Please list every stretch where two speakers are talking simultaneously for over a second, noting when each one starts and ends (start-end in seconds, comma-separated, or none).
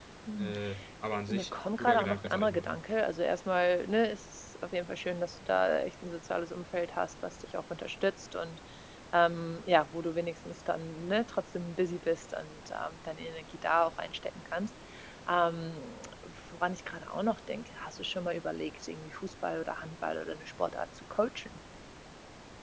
1.3-2.8